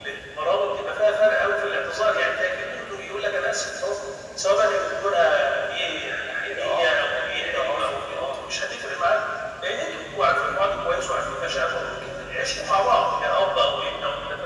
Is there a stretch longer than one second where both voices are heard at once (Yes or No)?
Yes